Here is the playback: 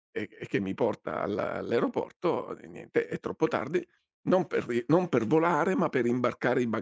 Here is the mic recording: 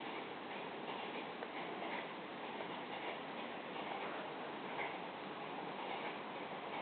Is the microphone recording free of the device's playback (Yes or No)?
Yes